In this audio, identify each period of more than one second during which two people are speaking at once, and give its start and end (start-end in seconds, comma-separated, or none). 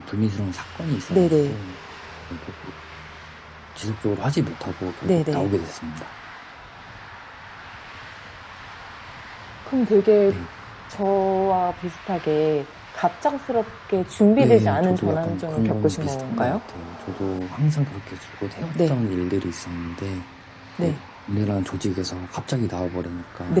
14.4-16.6